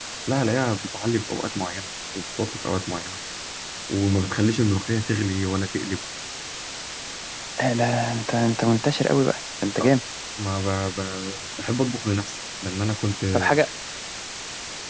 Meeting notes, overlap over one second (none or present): none